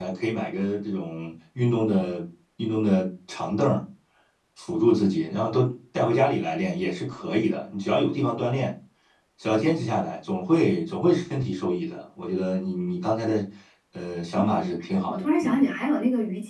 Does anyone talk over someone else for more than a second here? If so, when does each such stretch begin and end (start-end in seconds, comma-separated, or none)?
14.4-15.6